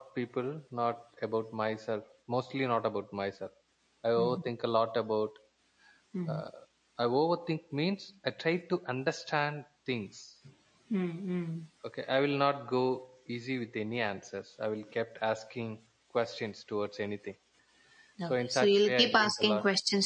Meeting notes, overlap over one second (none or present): present